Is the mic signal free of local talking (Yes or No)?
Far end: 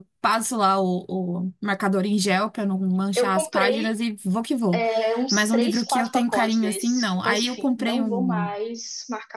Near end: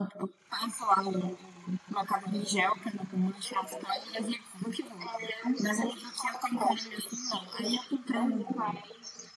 Yes